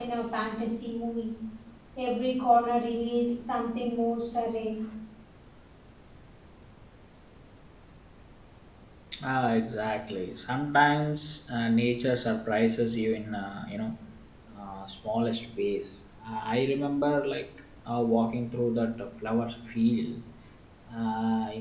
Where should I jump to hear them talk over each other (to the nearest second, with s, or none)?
none